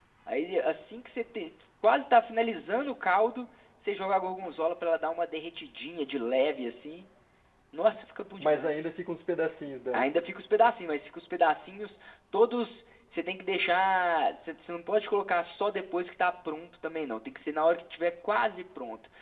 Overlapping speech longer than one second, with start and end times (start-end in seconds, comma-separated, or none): none